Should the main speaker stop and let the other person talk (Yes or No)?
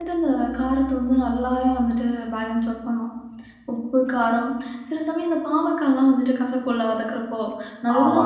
No